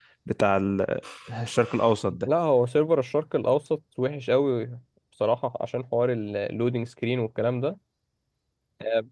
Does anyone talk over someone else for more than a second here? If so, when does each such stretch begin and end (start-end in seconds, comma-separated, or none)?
none